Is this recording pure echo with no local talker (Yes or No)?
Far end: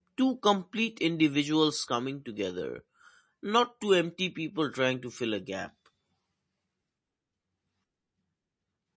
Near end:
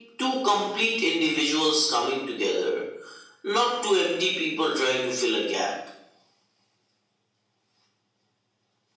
Yes